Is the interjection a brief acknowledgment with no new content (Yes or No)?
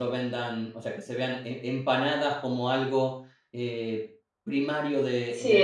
No